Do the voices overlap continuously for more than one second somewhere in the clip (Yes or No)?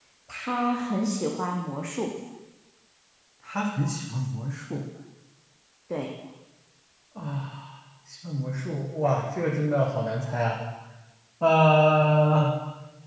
No